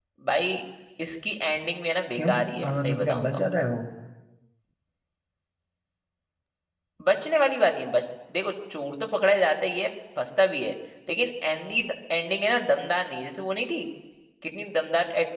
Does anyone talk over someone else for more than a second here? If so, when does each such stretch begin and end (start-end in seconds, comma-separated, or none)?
2.1-3.4